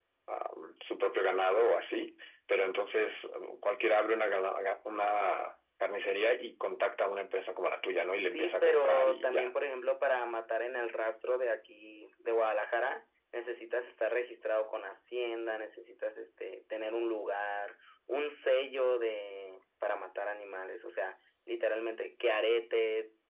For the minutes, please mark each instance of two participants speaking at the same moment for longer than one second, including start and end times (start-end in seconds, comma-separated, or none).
8.2-9.5